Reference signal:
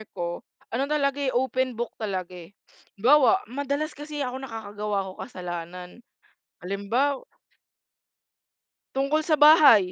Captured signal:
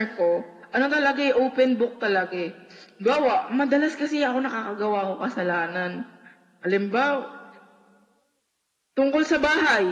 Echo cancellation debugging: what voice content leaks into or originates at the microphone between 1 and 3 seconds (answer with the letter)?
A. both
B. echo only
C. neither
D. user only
B